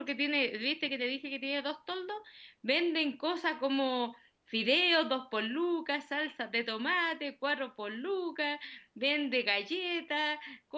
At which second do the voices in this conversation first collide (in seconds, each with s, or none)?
none